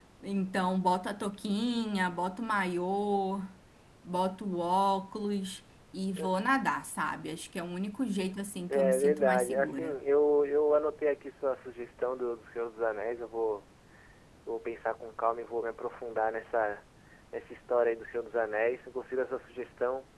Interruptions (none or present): present